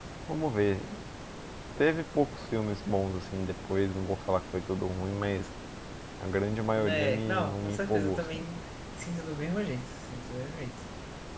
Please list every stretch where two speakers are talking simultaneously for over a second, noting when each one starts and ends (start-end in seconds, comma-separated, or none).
6.8-8.5